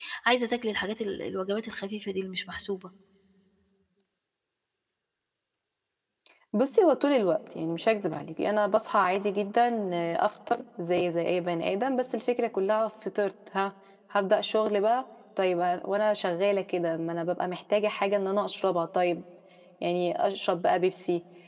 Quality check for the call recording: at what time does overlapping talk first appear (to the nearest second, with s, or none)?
none